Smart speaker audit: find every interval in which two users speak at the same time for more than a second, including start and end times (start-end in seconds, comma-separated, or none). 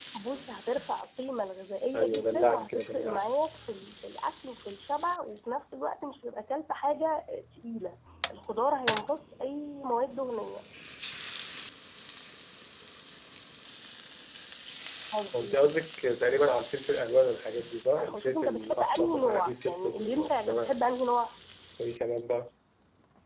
1.9-3.3, 18.0-20.8